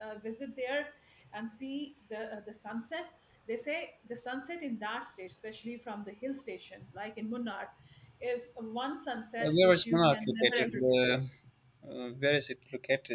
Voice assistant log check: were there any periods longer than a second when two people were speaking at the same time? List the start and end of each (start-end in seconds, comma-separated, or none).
9.4-11.1